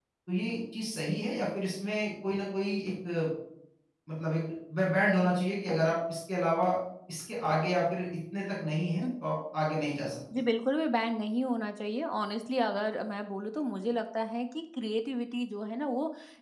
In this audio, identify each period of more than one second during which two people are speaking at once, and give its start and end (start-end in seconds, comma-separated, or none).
none